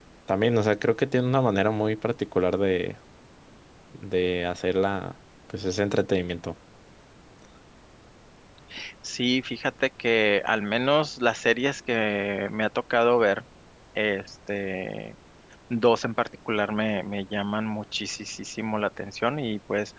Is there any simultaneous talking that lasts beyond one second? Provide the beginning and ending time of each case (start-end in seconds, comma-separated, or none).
none